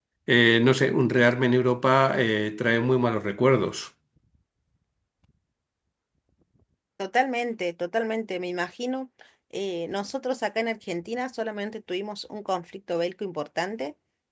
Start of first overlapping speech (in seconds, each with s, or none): none